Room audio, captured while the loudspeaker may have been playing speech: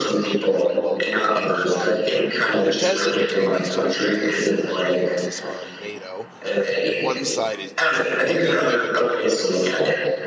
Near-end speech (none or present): present